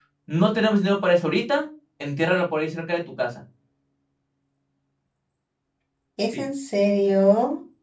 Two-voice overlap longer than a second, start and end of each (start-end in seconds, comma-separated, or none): none